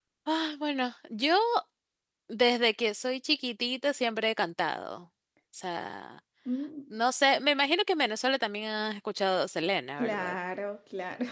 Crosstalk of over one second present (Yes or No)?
No